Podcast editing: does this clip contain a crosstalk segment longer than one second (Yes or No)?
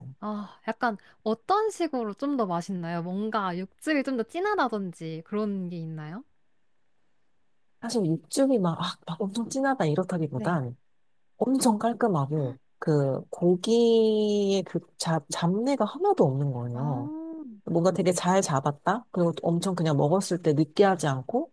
No